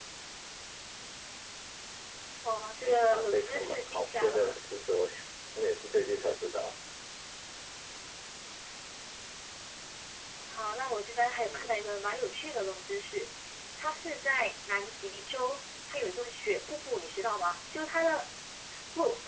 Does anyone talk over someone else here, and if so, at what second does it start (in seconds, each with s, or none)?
2.8 s